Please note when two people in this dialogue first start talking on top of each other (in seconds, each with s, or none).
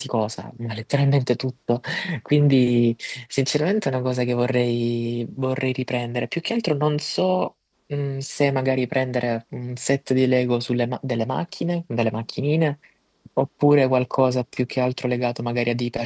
none